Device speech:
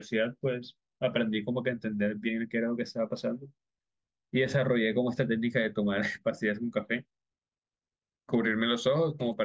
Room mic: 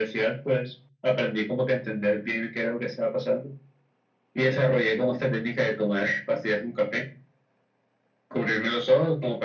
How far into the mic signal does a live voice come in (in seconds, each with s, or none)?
none